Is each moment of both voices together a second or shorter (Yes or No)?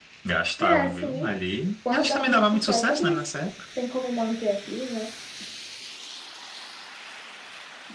No